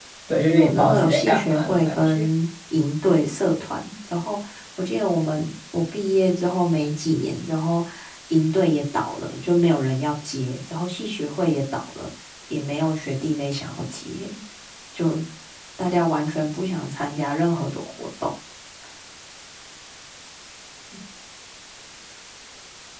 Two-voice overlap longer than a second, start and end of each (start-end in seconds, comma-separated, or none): 0.5-2.3